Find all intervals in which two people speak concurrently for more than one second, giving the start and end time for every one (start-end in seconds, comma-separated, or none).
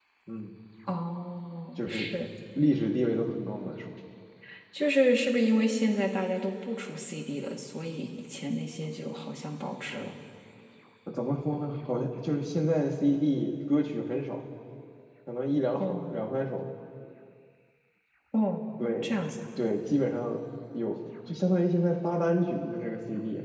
none